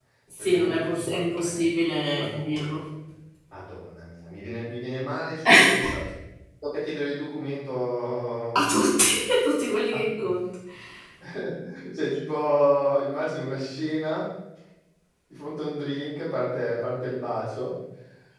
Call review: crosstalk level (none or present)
present